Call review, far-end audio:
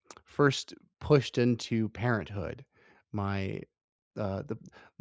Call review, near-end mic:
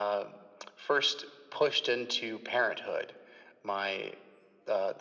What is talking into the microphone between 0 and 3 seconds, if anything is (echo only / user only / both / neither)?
echo only